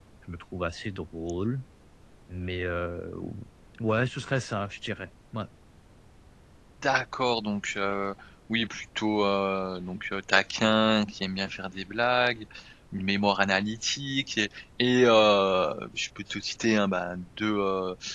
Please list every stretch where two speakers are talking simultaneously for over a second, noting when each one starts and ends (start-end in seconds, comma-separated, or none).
none